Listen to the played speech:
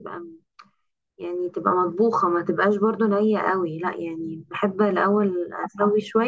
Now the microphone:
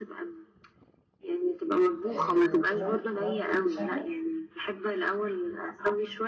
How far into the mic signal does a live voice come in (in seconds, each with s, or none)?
2.1 s